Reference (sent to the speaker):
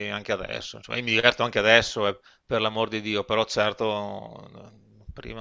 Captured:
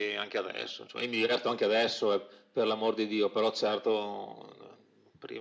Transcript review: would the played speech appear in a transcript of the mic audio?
Yes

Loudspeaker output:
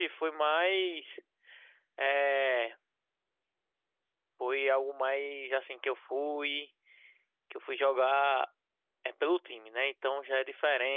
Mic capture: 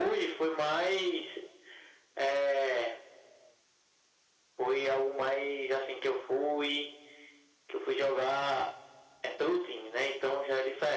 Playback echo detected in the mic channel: Yes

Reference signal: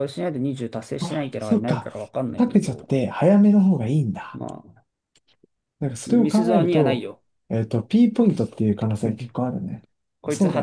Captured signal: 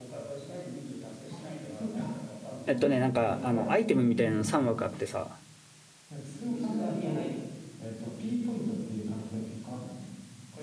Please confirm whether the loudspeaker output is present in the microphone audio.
Yes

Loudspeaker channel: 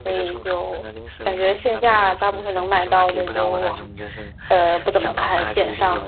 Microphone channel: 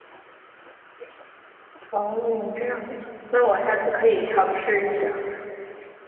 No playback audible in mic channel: Yes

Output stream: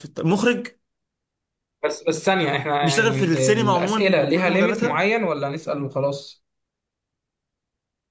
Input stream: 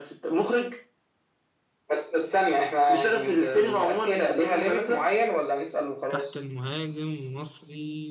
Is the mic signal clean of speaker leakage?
No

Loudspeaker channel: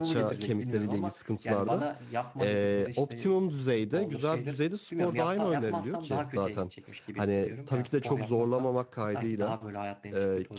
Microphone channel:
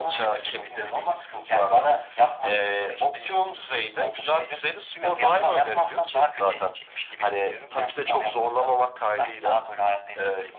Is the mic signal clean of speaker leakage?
No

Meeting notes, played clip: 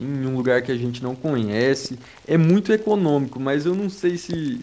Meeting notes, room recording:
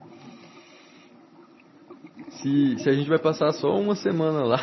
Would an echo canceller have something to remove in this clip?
No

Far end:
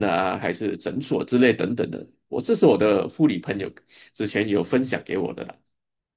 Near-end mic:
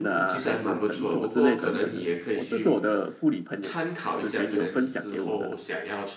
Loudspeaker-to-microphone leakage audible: Yes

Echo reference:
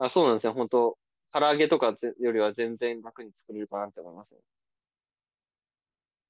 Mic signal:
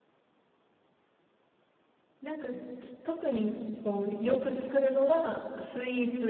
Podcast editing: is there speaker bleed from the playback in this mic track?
No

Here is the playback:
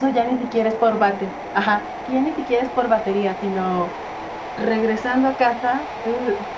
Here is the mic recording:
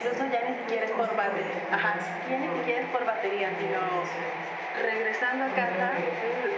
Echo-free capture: No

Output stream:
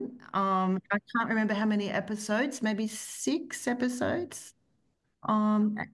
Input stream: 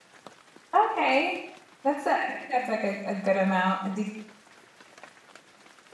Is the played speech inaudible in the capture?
Yes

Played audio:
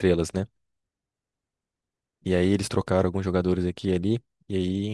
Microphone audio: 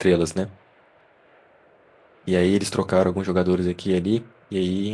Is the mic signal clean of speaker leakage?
No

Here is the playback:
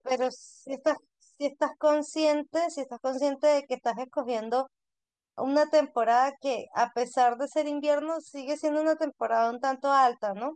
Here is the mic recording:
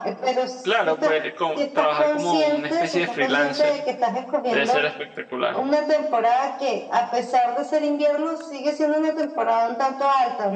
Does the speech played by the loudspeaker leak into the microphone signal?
Yes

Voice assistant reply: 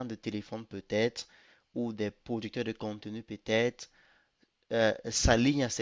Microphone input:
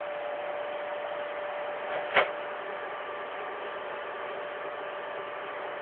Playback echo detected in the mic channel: No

